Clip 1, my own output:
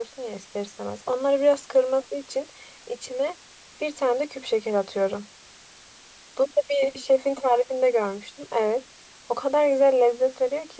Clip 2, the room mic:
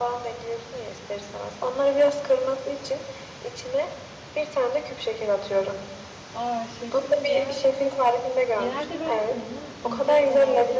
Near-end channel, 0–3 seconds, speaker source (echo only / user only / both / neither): echo only